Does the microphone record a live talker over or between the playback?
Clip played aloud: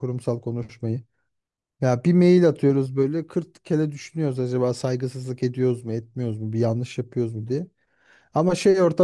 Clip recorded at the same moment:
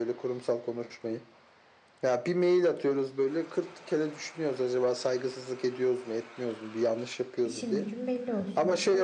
Yes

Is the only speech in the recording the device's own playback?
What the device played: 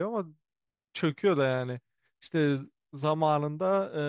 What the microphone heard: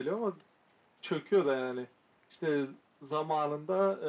Yes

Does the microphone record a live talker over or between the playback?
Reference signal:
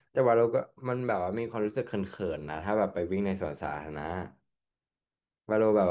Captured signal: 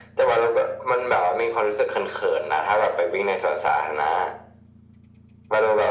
No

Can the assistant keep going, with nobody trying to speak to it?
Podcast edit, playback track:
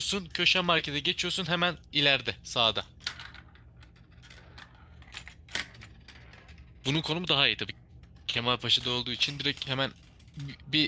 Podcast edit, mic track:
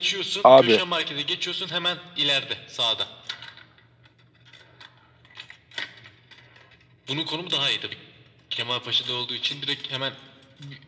No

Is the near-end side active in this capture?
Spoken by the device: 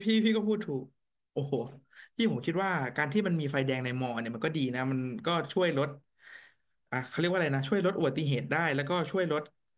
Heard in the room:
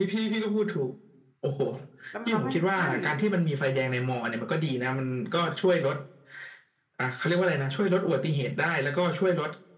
Yes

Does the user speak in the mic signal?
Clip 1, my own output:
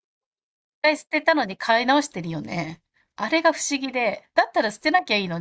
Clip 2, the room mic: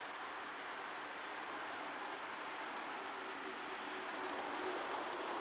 No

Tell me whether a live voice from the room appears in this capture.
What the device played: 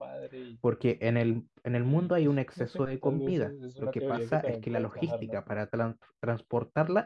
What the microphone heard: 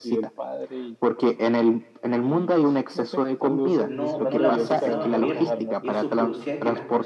Yes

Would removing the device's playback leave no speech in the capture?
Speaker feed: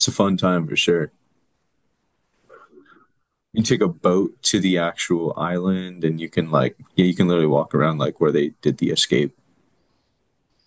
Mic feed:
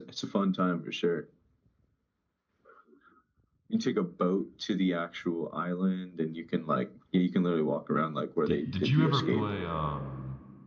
No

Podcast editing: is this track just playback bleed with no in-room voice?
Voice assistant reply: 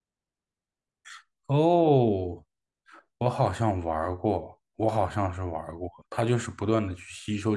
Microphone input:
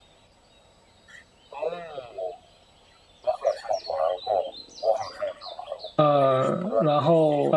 No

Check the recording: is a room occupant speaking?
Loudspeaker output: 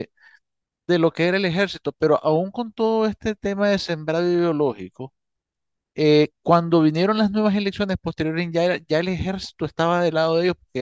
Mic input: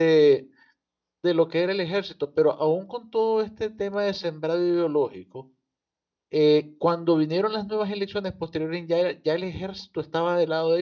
No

